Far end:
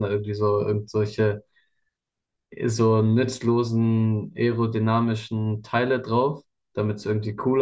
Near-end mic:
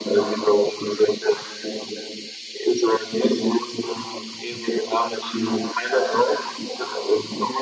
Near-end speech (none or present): none